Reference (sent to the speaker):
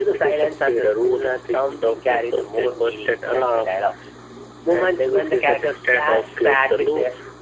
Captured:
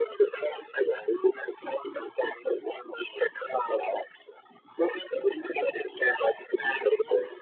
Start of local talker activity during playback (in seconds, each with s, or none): none